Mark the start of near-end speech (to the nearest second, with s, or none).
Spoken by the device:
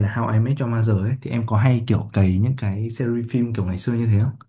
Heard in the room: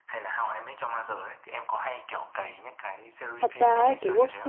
3 s